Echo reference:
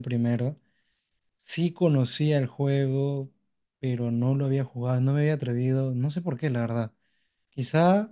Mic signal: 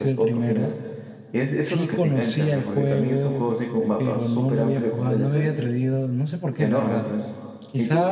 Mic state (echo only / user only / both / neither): both